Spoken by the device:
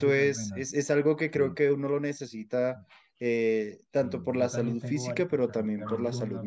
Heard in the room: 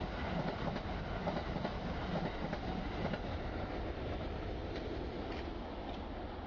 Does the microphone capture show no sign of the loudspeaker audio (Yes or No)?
Yes